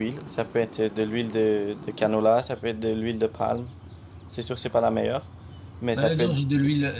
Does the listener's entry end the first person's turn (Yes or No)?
Yes